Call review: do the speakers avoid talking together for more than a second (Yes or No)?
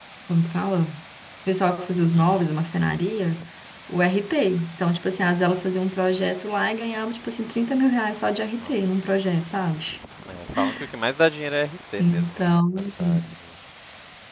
No